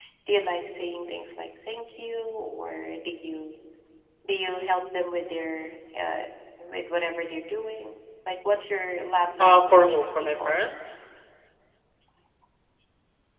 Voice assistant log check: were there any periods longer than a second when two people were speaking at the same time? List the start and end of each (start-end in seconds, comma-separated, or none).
9.4-10.6